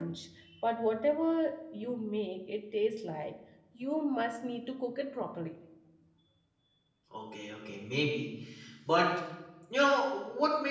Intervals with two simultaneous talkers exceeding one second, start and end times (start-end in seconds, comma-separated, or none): none